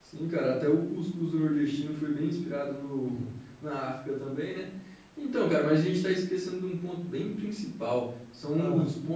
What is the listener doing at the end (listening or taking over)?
listening